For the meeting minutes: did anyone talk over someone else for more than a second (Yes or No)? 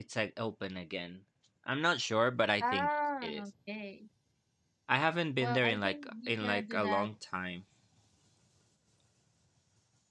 Yes